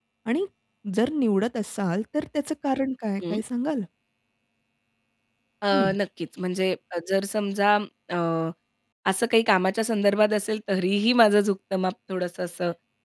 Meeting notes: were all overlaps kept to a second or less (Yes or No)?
Yes